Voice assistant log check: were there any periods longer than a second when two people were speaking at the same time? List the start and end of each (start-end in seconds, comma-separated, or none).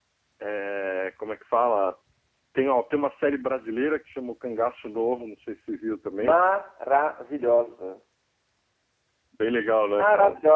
none